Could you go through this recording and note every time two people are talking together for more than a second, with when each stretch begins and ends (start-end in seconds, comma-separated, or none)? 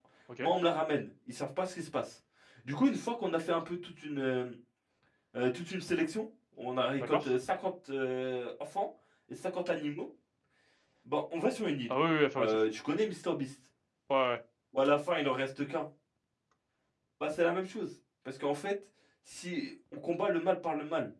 none